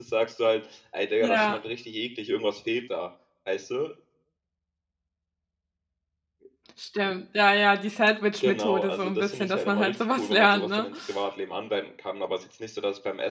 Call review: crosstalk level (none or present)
present